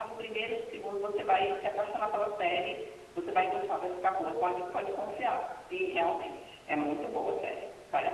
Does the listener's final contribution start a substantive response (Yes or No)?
Yes